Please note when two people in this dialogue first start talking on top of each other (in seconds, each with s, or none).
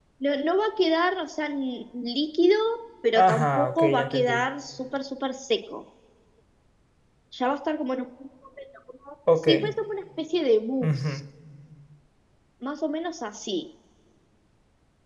3.1 s